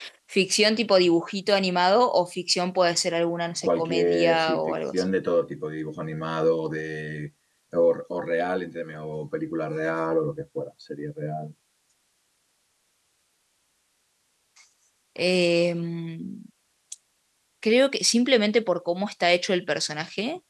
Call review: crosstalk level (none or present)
present